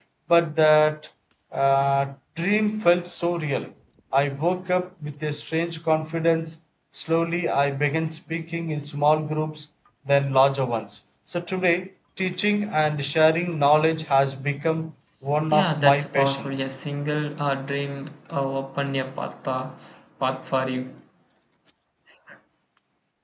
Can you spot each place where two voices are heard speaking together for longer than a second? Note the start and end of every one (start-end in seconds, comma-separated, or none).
15.5-16.8